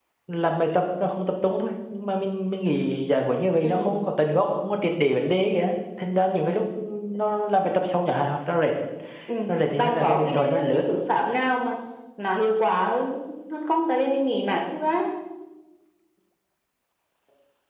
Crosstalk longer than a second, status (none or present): present